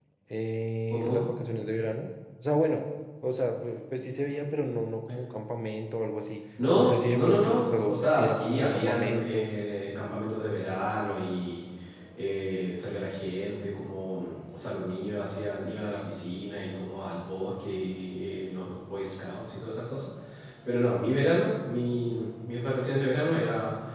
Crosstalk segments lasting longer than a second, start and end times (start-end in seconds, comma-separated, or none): 6.8-9.5